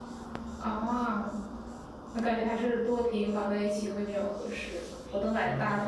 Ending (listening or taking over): taking over